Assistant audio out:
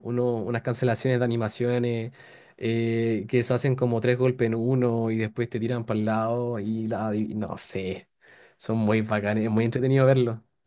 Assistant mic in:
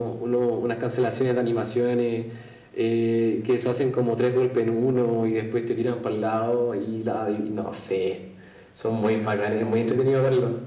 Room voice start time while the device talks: none

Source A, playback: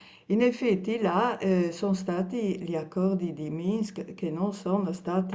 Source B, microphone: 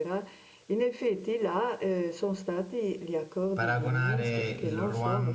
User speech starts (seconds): 3.5 s

